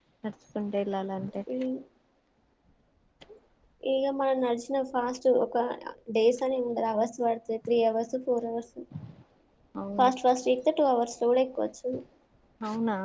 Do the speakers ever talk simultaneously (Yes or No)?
No